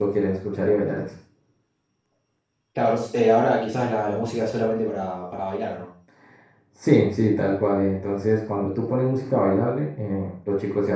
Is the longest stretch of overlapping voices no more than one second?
Yes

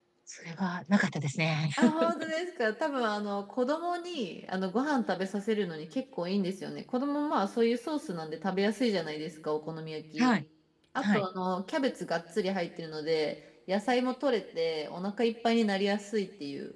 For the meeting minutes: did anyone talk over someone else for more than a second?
No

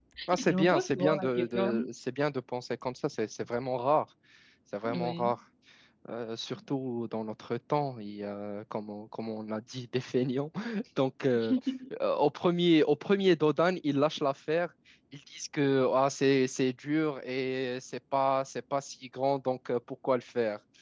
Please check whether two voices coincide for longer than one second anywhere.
Yes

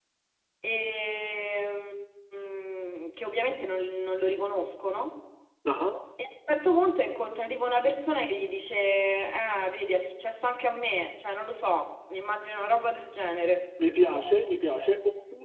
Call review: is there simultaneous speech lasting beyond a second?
No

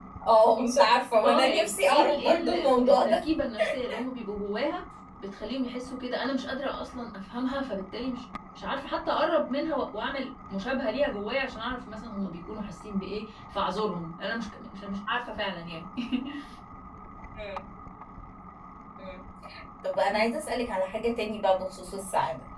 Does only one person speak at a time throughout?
No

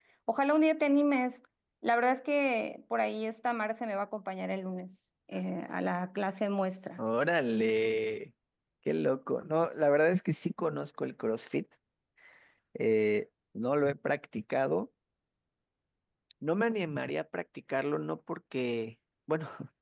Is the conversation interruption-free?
Yes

